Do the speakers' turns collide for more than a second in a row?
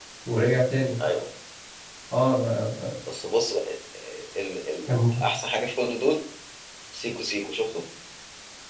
No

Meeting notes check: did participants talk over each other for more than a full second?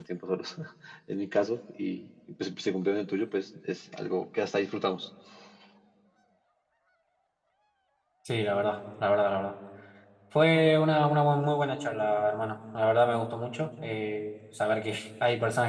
No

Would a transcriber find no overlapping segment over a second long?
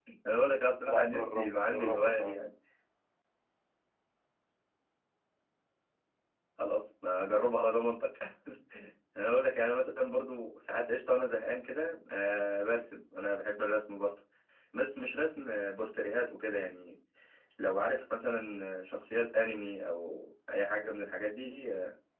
No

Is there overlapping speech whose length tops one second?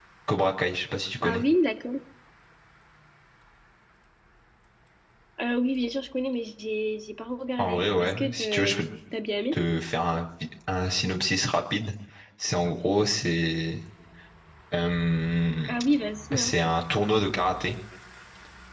Yes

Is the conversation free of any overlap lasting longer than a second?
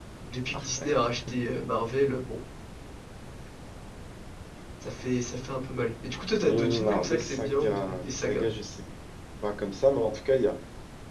No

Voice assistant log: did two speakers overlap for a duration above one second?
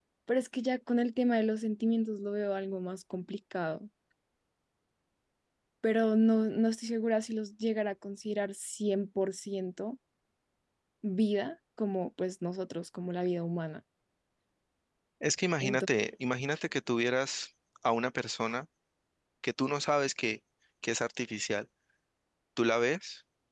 No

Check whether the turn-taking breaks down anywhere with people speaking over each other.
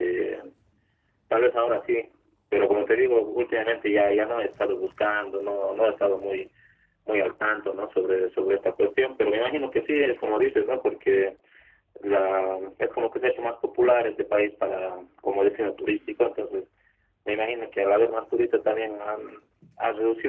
No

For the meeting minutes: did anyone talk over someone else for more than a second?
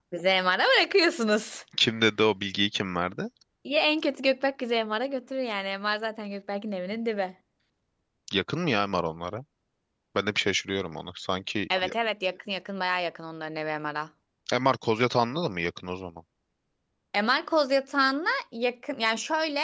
No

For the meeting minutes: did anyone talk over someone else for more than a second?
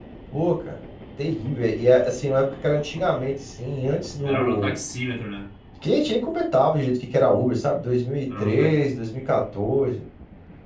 No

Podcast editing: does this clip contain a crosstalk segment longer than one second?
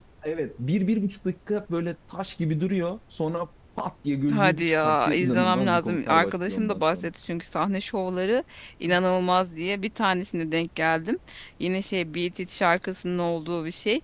Yes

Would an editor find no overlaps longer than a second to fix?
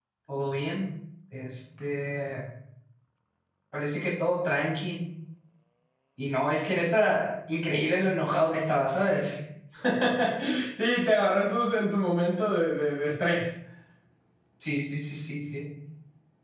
Yes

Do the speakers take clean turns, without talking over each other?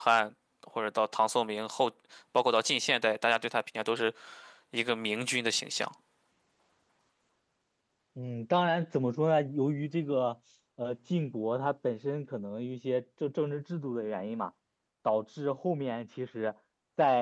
Yes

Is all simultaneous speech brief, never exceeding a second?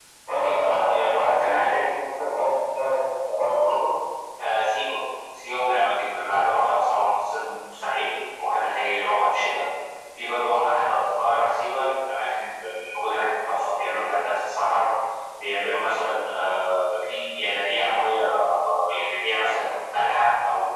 No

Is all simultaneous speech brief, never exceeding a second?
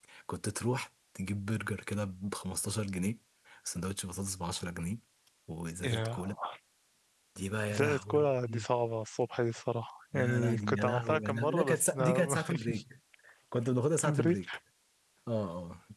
No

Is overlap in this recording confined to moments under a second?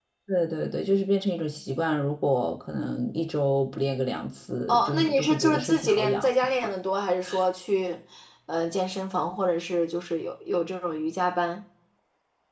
No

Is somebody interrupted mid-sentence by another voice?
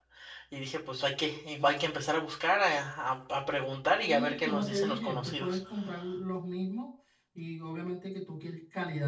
Yes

